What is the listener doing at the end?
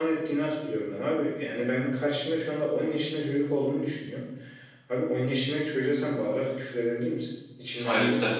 taking over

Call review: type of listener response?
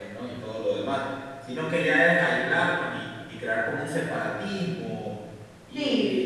listening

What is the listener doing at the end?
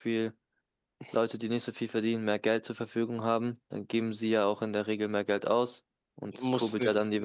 taking over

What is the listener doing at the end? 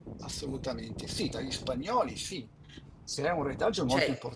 listening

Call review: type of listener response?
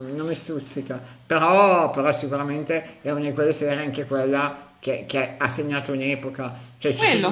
listening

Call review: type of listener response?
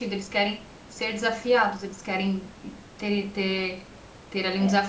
listening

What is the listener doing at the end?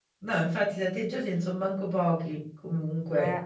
taking over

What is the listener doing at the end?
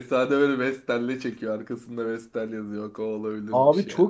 taking over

